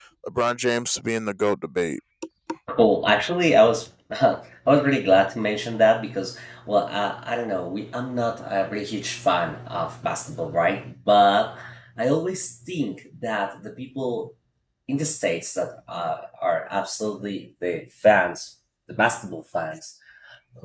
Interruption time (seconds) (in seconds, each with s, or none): none